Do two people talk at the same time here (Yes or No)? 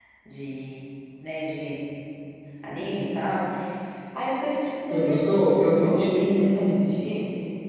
Yes